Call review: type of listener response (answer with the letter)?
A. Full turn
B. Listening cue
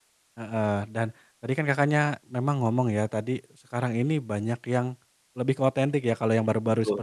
B